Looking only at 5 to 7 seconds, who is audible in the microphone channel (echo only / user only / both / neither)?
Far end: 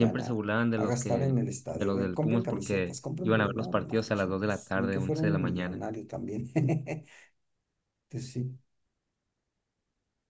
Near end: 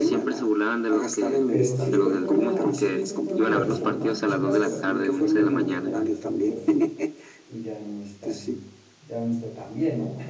both